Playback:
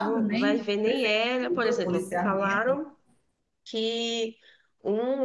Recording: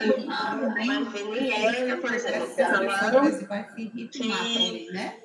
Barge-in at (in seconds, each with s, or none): 1.4 s